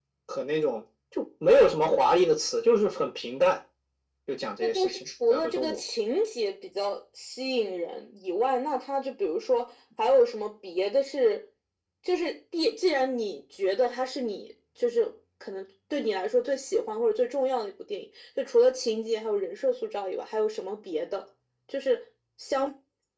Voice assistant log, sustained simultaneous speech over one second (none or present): present